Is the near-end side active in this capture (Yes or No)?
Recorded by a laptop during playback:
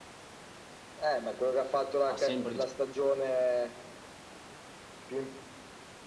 Yes